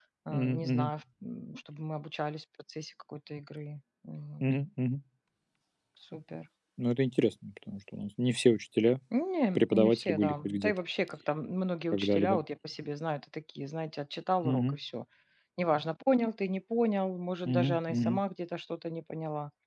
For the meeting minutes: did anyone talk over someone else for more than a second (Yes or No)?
Yes